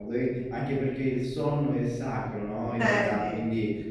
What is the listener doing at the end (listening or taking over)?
listening